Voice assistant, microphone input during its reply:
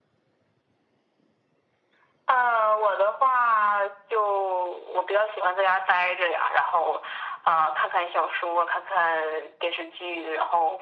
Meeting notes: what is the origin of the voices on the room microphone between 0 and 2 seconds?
neither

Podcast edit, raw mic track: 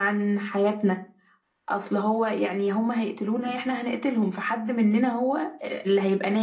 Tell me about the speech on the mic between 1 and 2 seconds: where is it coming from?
user only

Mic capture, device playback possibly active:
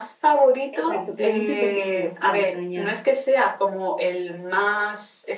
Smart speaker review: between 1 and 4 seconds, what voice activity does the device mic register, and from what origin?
both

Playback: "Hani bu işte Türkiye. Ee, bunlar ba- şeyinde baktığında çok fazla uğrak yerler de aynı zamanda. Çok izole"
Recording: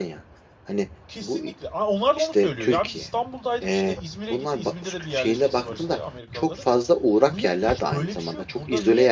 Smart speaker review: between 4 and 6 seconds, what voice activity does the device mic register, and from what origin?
both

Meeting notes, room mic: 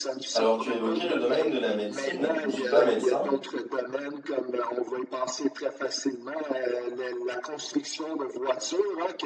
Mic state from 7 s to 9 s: echo only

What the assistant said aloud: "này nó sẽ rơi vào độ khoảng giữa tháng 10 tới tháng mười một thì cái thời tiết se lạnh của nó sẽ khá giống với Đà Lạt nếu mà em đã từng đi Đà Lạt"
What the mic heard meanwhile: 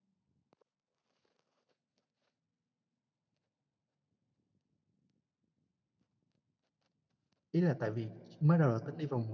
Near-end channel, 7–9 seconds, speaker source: user only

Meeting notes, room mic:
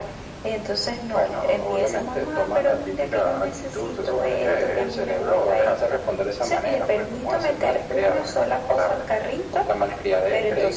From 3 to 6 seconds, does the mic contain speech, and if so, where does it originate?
echo only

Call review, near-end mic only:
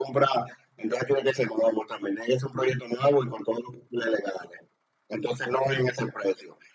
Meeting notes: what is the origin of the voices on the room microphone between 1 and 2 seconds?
echo only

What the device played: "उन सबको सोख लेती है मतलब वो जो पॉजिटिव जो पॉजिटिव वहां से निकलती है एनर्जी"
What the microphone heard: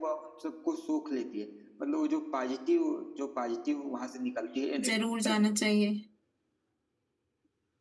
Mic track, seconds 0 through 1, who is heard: echo only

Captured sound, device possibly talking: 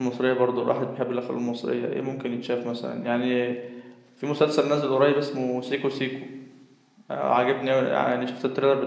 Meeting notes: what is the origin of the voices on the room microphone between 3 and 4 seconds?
user only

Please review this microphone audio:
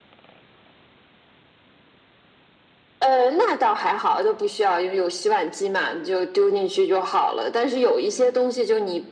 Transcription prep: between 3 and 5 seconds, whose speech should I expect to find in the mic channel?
echo only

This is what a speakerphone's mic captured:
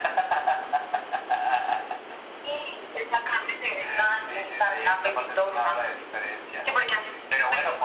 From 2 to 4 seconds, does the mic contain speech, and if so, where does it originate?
echo only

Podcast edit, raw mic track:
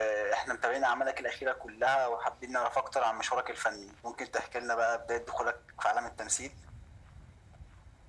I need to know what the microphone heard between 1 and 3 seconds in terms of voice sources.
echo only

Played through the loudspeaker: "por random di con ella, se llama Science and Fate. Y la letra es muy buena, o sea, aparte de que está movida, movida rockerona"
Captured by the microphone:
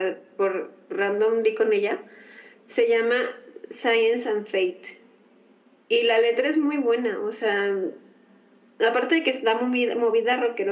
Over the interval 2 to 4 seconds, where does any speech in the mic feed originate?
echo only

